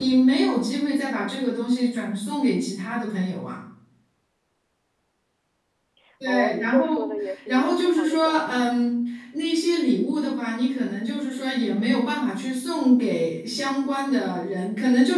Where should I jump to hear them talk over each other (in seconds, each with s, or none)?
6.3 s